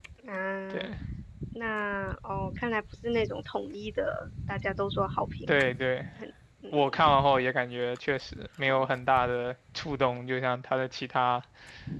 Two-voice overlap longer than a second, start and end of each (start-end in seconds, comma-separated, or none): none